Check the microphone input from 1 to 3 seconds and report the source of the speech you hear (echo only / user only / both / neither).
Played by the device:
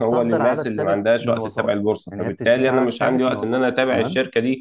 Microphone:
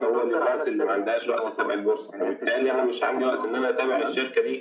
echo only